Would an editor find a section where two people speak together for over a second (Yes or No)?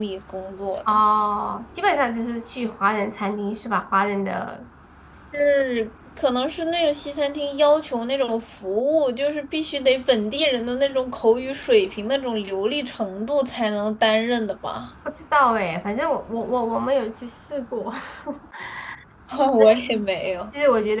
No